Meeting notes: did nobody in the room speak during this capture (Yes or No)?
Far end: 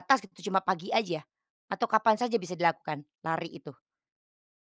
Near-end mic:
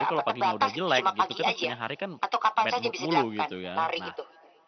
No